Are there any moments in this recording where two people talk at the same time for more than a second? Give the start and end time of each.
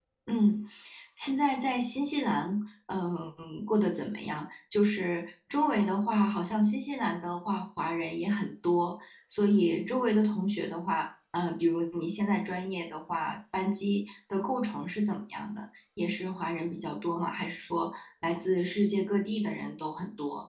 none

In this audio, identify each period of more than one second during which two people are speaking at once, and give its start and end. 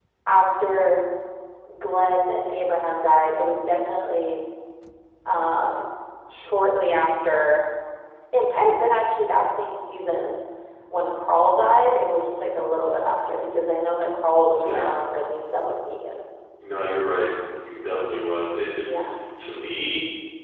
none

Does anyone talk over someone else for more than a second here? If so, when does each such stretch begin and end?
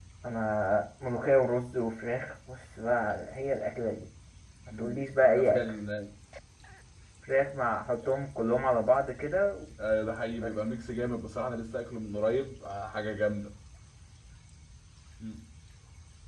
none

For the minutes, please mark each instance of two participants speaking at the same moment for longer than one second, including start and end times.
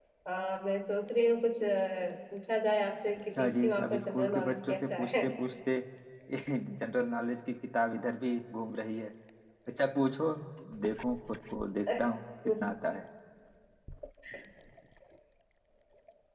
3.4-5.2

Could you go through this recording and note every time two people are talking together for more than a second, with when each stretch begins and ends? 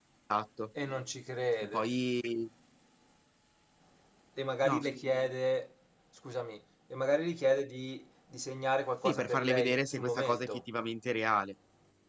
9.0-10.6

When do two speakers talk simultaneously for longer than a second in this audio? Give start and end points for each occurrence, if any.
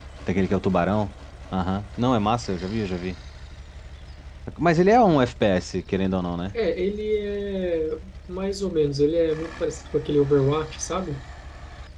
none

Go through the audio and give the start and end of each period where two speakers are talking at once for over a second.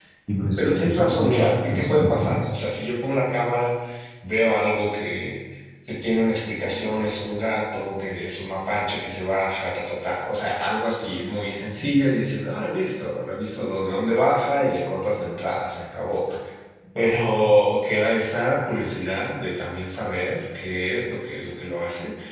0.6-2.6

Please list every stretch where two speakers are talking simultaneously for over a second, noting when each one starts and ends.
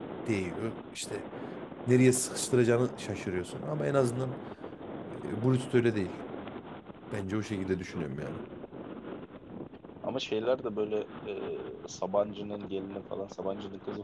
none

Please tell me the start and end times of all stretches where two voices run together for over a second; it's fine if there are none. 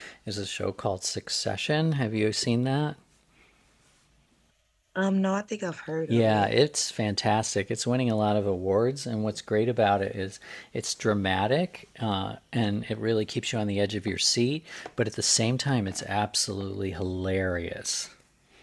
none

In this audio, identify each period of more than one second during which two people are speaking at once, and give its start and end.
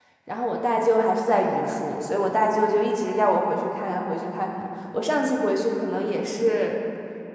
none

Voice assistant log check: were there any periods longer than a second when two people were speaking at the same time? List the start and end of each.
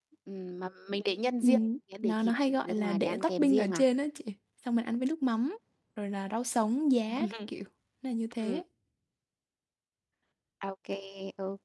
2.0-3.8

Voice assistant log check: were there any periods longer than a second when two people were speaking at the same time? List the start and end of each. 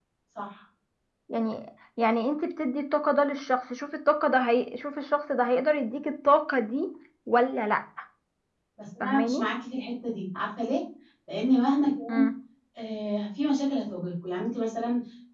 none

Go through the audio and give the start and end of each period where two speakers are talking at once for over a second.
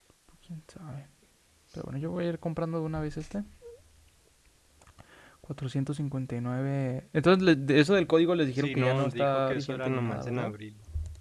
8.6-10.5

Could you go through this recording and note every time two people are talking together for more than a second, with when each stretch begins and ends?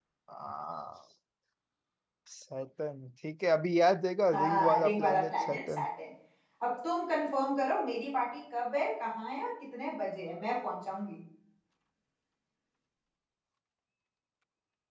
4.3-5.8

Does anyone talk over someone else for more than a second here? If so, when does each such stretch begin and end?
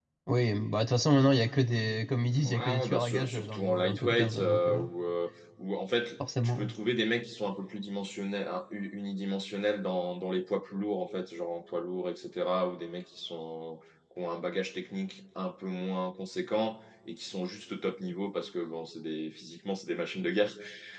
2.5-4.8

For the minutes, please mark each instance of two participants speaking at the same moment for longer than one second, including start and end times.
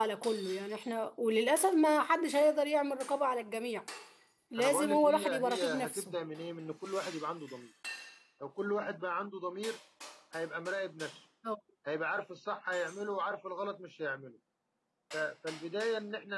4.6-6.2

